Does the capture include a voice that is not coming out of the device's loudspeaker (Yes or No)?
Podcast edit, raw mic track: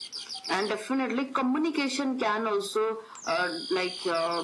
No